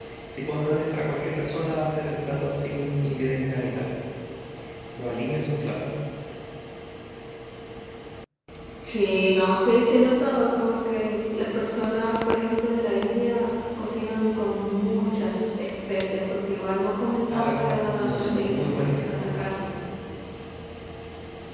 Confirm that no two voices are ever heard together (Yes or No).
No